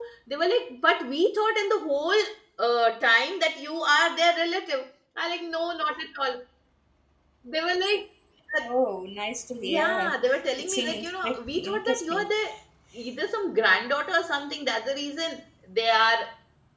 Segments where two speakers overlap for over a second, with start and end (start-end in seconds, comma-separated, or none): 10.6-12.2